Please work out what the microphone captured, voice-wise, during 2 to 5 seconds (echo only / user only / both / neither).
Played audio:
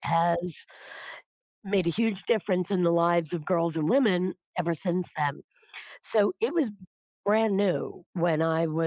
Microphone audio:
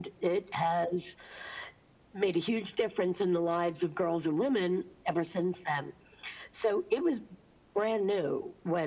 echo only